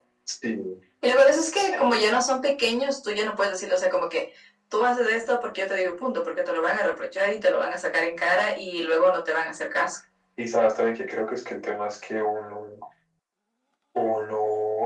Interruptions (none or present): none